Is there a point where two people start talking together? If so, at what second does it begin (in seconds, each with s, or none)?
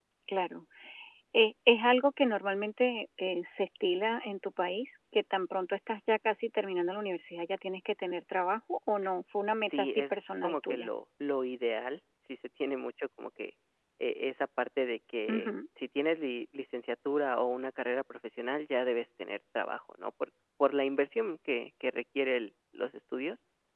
9.6 s